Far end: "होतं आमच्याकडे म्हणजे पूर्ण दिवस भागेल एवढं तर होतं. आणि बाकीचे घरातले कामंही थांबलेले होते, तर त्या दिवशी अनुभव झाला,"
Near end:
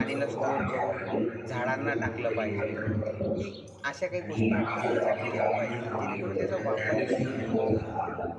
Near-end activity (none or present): present